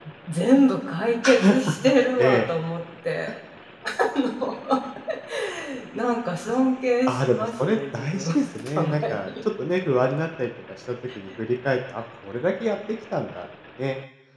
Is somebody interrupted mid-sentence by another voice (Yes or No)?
Yes